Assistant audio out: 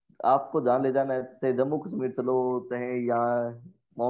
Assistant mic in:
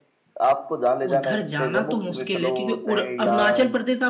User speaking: Yes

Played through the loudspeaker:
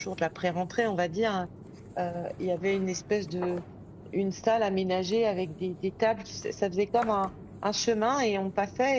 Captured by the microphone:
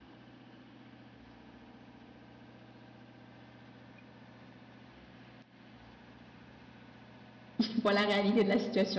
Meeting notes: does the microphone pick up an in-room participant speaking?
Yes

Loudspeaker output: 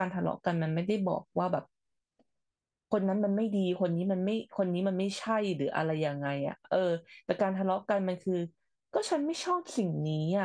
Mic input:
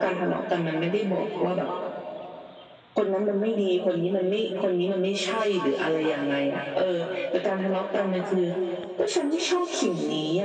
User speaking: No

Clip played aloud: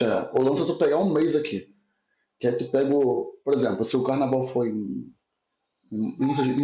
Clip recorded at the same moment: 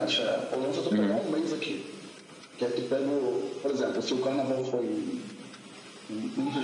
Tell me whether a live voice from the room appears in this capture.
Yes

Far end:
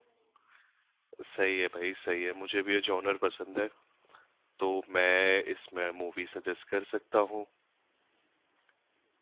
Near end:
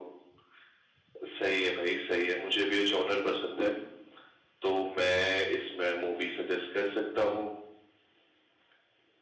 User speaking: No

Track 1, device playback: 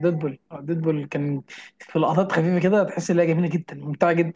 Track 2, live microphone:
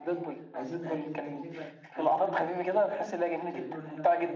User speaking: Yes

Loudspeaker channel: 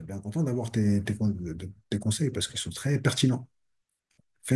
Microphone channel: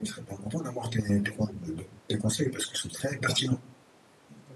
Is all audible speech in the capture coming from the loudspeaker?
No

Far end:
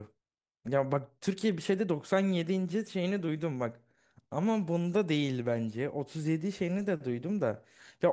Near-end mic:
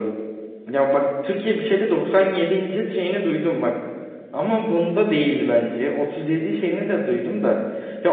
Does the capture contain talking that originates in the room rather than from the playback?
No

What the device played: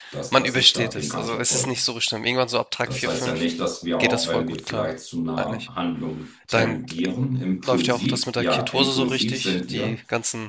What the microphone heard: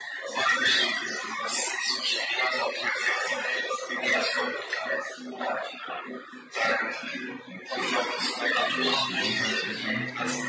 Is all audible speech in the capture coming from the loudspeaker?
No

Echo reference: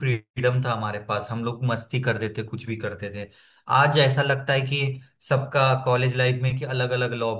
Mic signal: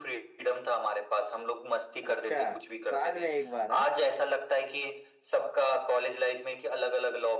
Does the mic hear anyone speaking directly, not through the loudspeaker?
Yes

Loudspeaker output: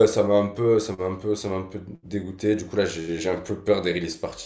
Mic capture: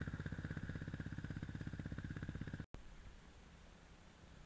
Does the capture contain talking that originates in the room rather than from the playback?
No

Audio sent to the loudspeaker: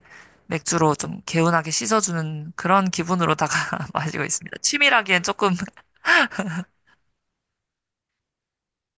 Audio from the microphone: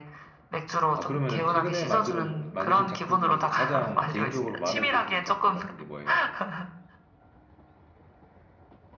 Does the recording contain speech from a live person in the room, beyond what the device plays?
Yes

